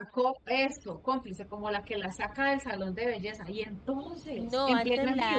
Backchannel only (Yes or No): No